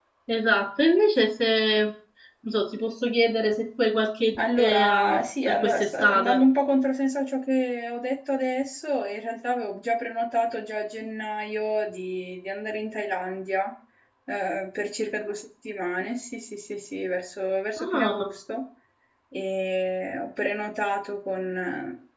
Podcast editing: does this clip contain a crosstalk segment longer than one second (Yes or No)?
Yes